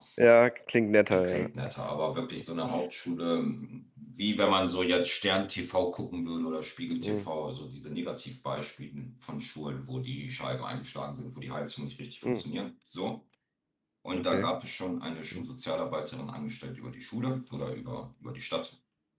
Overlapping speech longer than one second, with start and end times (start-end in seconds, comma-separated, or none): none